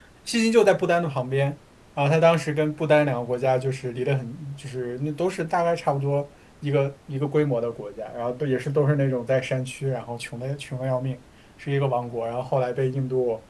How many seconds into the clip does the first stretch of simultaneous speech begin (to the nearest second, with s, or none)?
none